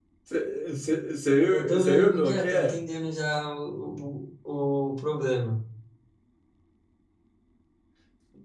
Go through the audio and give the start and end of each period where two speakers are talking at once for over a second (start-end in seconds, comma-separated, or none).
1.5-2.8